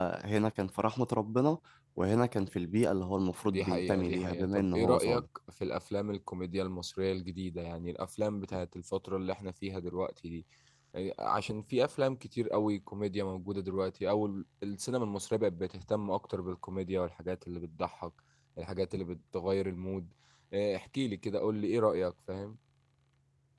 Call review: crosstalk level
present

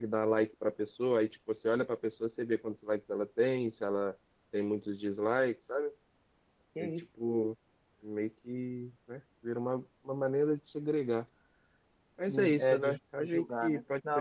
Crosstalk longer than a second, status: present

